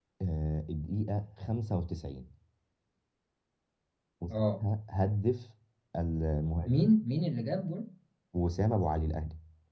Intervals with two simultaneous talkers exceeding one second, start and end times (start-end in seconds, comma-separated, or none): none